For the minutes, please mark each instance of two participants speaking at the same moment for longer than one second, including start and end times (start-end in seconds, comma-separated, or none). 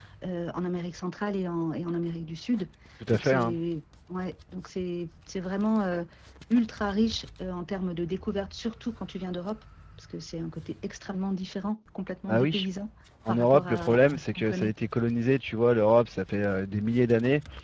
13.3-14.7